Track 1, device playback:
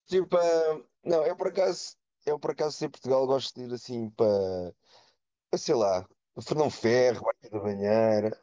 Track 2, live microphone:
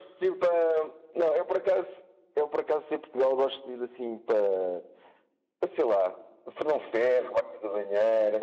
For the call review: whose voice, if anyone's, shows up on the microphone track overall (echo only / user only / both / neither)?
echo only